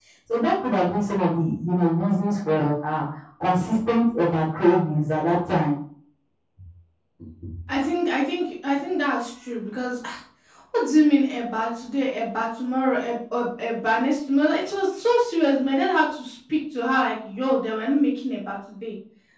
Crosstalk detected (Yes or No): No